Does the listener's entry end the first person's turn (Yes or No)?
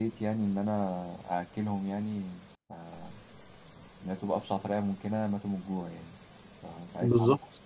No